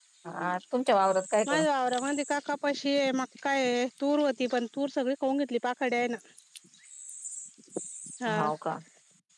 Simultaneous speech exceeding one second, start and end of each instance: none

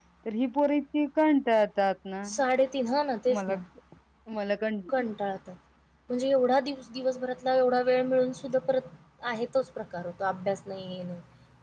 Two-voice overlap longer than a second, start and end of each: none

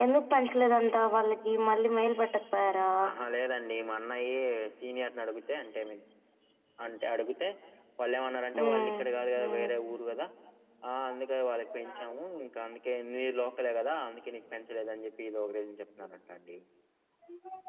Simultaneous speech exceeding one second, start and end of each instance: none

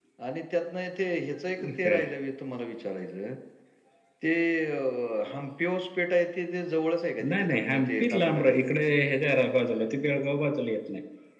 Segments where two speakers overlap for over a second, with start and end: 7.3-8.7

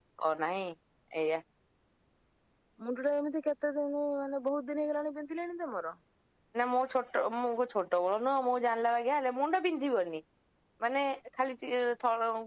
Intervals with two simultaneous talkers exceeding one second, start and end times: none

